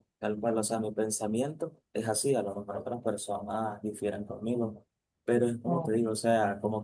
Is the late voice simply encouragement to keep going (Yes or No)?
Yes